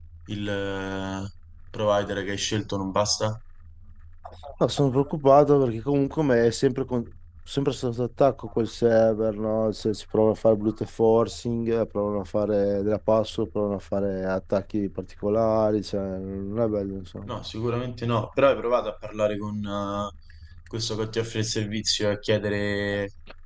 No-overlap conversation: Yes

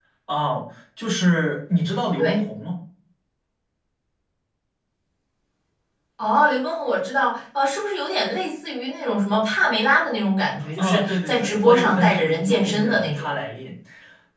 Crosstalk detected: Yes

